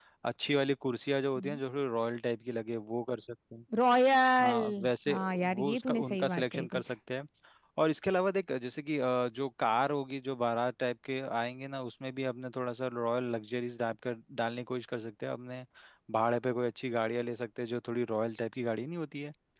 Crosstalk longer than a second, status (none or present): present